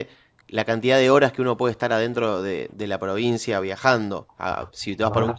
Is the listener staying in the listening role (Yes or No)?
Yes